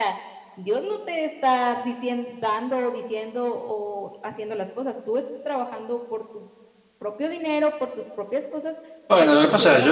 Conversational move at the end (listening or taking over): taking over